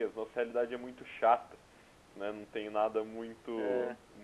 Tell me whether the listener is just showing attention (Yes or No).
Yes